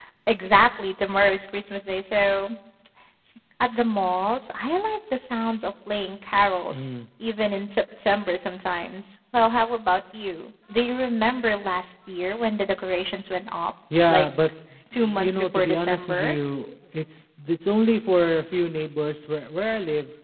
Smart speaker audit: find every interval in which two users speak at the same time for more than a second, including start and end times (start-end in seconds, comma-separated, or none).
14.9-16.4